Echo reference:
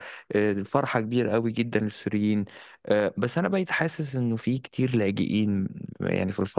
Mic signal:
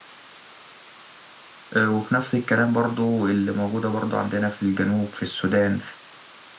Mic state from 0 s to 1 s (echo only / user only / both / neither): neither